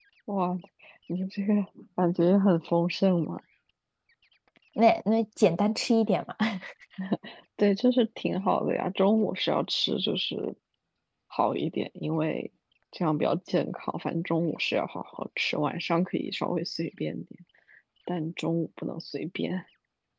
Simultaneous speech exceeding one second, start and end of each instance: none

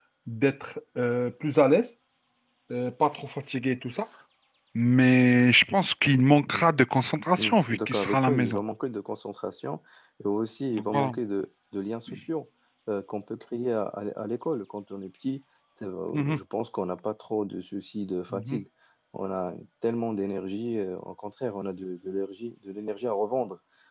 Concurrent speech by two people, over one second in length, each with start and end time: 7.4-8.6

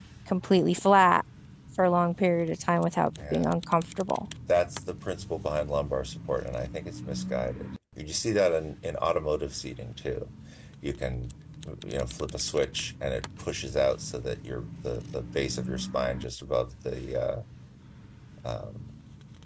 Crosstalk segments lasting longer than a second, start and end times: none

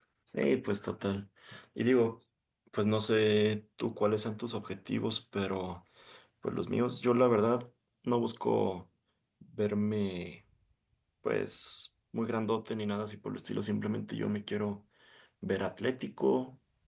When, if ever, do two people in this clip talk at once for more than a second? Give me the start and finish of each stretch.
none

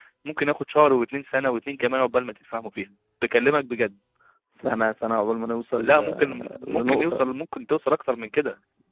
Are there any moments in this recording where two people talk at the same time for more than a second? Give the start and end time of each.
5.8-7.2

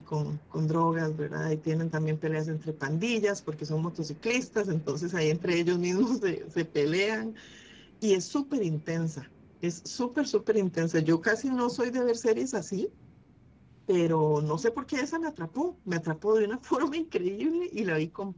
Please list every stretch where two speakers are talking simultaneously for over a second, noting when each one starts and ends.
none

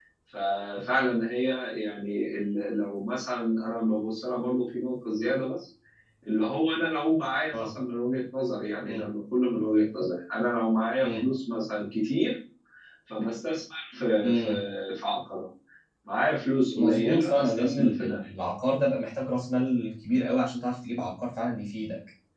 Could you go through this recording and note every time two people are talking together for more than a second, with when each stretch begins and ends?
16.8-18.2

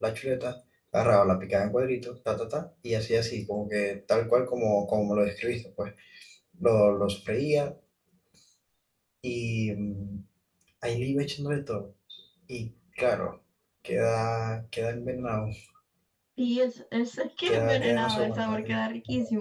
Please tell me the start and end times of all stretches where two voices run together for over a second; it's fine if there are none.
17.4-18.8

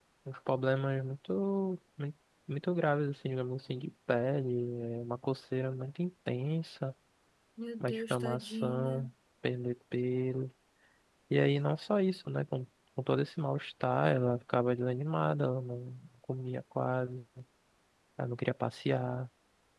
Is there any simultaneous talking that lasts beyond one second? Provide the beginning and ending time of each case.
7.8-9.1

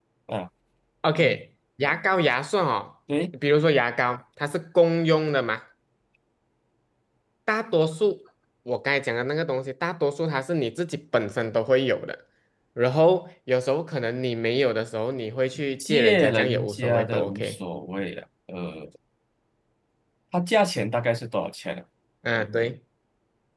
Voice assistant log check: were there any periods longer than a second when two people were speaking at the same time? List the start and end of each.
15.8-17.6

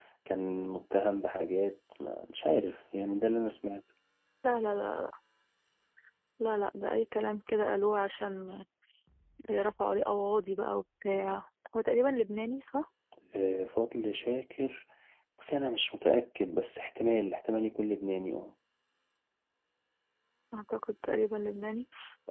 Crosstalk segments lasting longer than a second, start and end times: none

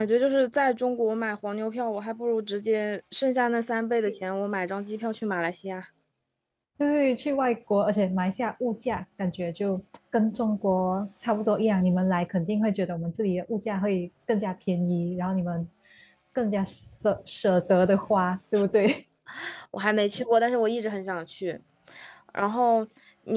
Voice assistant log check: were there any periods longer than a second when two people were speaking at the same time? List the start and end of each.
none

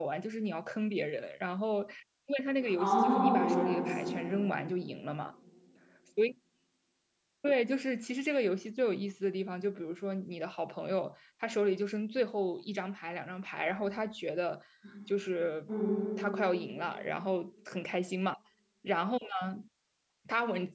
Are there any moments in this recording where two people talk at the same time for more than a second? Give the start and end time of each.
2.8-4.0

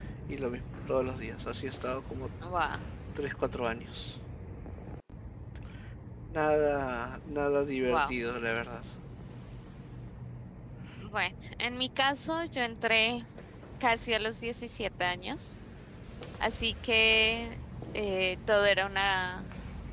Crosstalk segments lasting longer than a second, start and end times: none

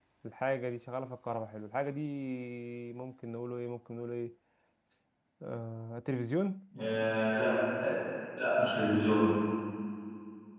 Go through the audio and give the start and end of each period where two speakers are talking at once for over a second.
none

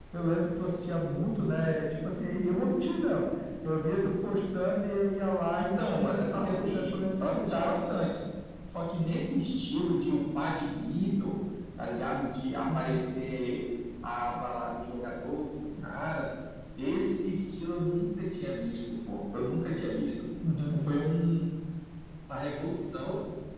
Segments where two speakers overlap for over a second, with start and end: 5.5-7.8

